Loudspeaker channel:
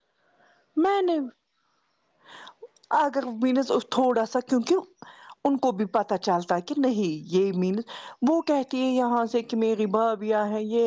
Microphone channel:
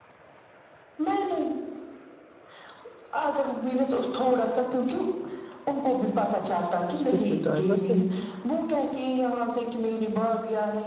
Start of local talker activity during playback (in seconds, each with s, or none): 6.8 s